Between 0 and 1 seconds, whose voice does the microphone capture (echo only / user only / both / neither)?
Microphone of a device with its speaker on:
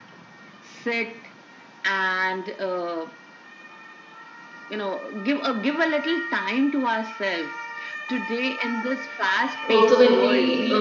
echo only